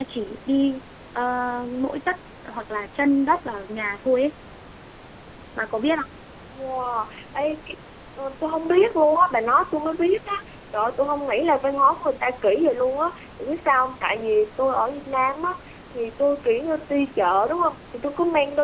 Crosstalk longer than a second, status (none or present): none